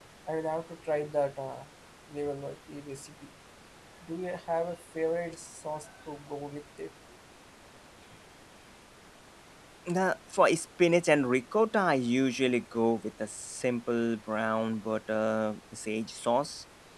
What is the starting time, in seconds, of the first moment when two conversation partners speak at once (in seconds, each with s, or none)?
none